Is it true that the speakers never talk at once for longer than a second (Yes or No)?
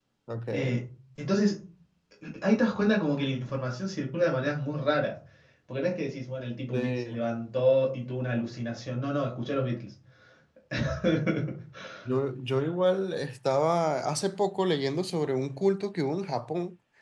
Yes